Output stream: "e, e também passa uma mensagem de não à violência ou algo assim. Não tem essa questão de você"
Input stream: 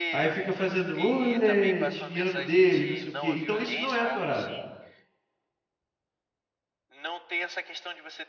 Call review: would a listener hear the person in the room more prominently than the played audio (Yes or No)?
Yes